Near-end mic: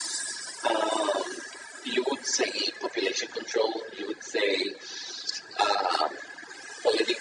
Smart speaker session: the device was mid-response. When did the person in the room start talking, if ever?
none

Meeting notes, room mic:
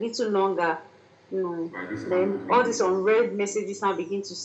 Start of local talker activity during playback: 1.7 s

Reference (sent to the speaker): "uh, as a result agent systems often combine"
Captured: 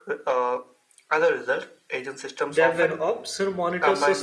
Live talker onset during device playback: 2.6 s

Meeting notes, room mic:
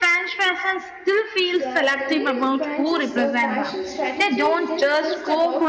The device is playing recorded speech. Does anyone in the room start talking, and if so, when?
1.4 s

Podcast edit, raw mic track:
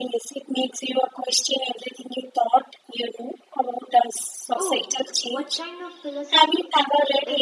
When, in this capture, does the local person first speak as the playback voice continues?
4.5 s

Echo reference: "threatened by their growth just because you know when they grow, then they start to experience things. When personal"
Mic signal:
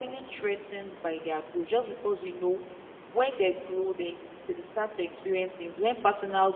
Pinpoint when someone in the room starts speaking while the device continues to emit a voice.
none

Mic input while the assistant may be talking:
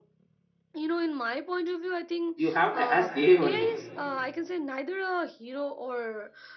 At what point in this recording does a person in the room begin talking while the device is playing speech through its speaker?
2.4 s

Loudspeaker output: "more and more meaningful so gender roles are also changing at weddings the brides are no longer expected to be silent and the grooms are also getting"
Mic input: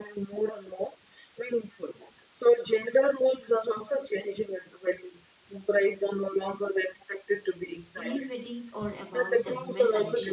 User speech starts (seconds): 8.0 s

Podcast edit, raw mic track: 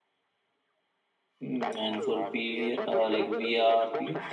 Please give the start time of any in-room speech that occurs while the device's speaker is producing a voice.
1.4 s

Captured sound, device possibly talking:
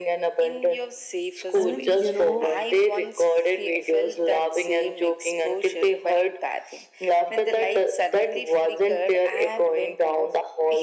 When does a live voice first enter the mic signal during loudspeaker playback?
1.5 s

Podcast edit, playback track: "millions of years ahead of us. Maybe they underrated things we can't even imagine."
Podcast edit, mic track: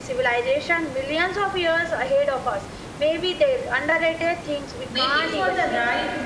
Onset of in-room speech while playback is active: 4.9 s

